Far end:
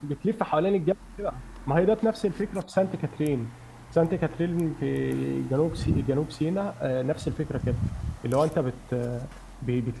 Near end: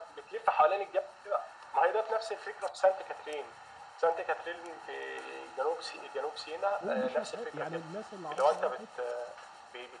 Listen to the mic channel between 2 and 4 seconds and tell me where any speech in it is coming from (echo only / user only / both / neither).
echo only